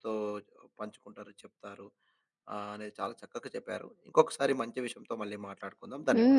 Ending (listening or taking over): taking over